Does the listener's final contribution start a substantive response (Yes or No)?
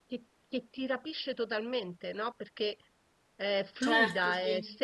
No